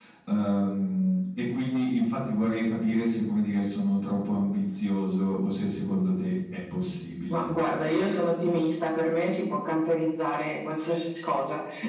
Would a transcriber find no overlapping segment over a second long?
Yes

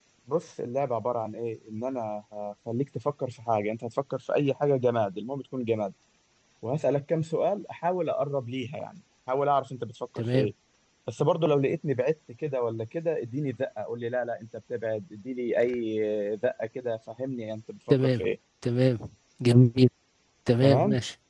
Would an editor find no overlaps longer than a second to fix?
Yes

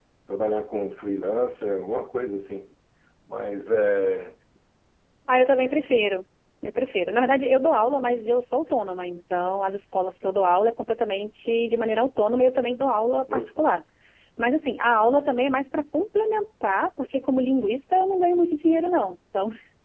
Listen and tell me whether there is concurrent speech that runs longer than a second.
No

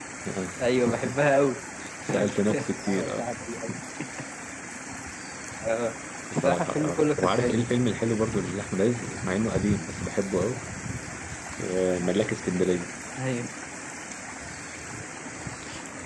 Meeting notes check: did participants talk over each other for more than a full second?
Yes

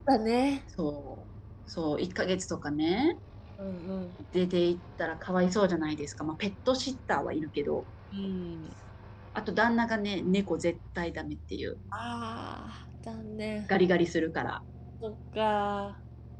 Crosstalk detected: No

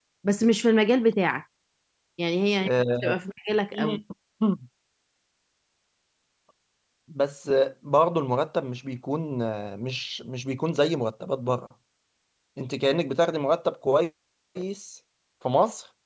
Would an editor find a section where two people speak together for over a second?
No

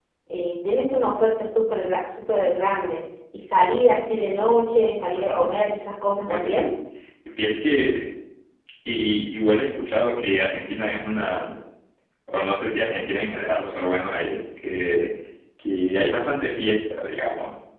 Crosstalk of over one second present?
No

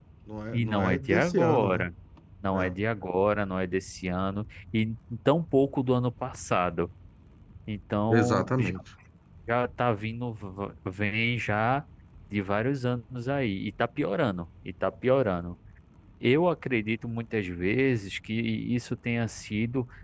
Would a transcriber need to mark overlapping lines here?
Yes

